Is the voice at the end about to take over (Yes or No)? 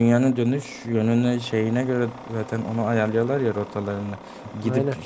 No